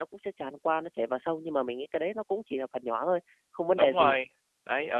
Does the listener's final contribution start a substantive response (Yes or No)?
Yes